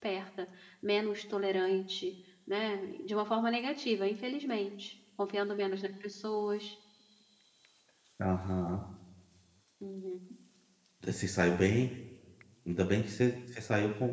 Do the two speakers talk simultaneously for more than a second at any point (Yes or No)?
No